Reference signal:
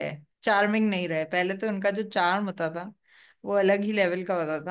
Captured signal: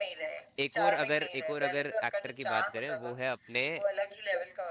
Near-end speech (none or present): present